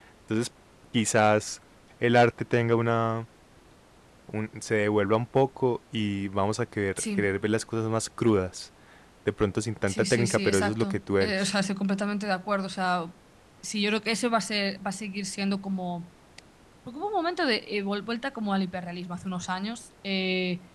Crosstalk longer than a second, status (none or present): present